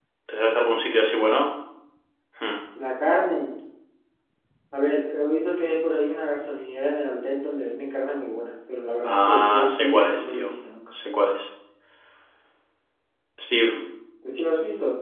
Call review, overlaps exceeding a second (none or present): present